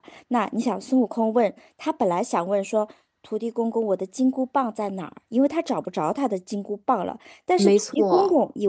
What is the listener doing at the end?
listening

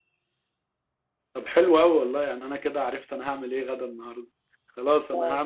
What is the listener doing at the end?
listening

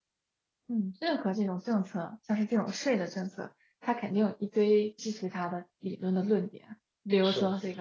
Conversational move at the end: listening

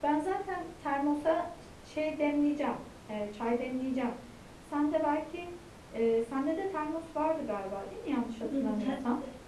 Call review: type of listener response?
taking over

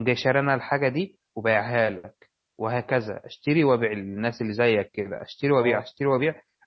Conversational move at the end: listening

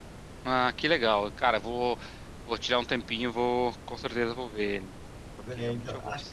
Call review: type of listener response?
taking over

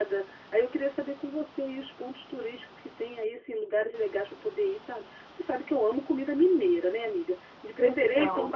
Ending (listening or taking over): listening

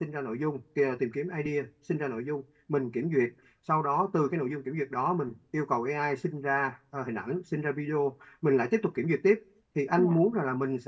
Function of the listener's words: listening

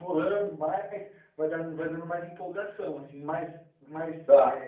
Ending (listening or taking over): taking over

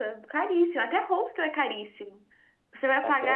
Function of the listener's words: listening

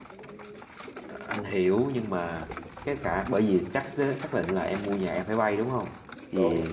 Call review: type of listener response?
listening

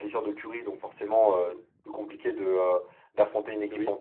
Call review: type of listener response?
listening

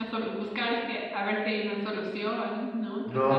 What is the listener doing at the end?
taking over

